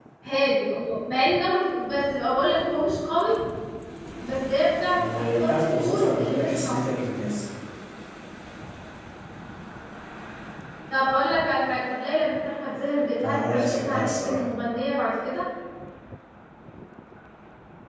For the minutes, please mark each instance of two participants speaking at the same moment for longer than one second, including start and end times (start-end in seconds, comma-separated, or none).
4.9-7.0, 13.2-14.5